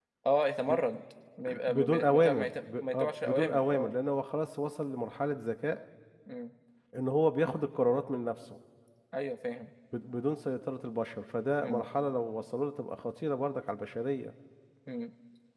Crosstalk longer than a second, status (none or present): present